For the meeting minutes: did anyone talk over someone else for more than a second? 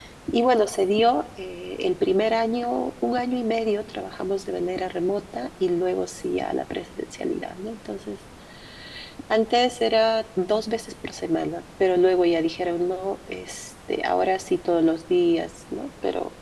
No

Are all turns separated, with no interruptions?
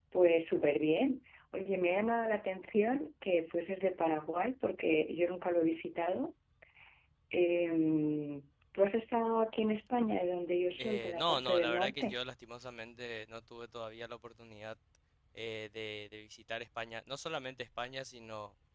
No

